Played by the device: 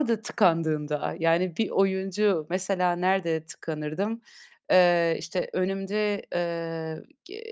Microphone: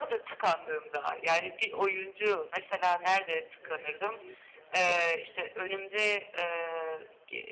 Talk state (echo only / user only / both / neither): both